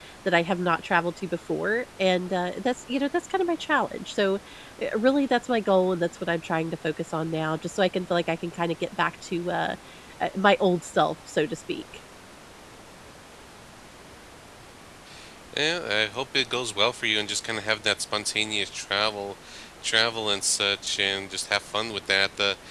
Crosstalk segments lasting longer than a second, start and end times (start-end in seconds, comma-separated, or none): none